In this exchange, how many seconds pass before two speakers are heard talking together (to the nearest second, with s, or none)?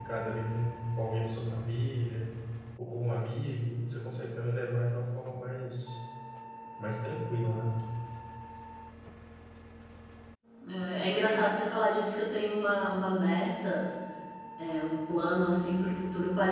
none